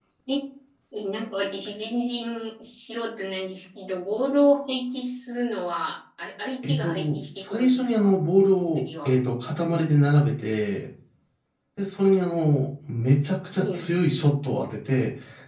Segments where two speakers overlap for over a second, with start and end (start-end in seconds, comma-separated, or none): 6.7-8.1